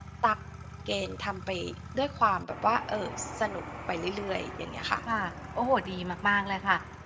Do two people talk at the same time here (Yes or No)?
No